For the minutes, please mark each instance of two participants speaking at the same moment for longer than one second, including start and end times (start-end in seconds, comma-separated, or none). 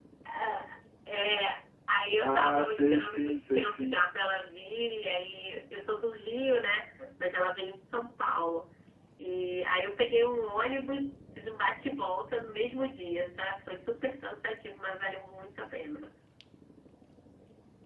2.1-4.0